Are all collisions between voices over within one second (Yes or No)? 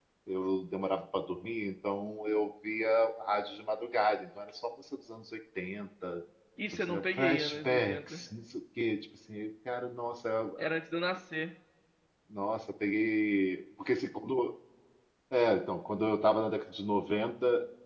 No